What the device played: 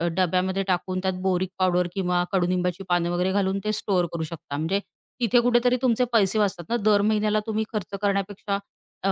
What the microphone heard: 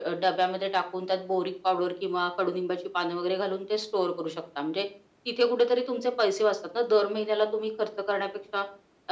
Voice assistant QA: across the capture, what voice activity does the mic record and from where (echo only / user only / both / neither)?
echo only